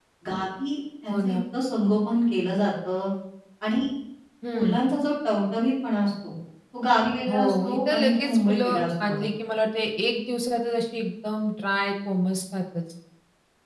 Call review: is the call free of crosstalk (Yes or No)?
No